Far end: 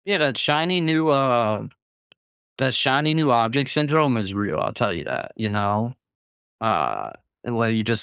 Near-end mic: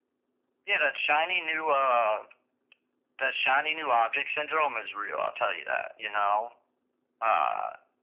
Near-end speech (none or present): none